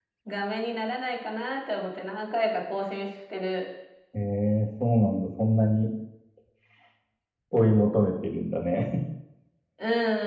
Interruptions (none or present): none